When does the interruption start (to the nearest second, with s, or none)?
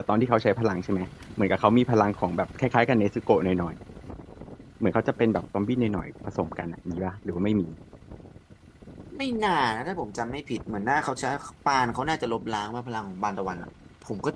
none